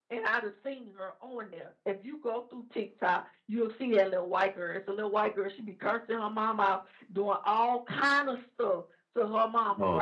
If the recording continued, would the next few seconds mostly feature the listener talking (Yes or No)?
No